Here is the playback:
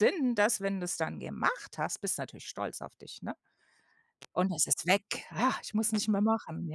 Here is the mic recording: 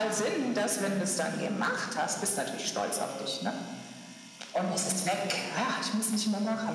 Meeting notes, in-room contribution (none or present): present